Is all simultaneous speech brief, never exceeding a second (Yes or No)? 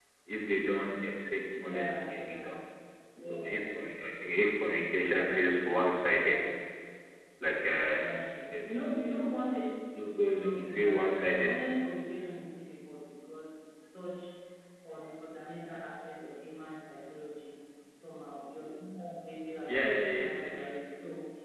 No